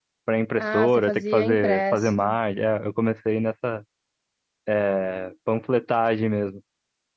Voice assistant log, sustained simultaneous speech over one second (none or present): present